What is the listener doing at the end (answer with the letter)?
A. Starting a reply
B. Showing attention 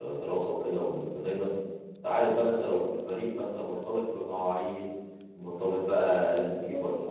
B